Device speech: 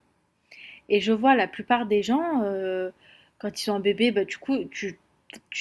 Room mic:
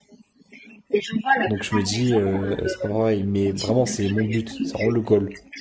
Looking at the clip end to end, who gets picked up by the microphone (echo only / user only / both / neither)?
both